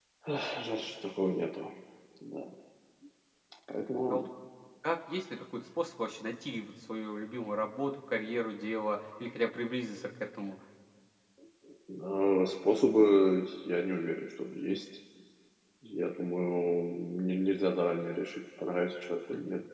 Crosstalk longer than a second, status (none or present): none